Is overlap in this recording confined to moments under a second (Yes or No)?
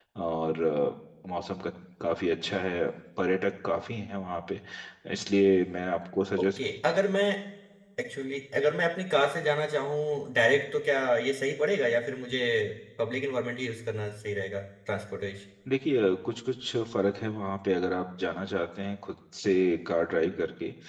Yes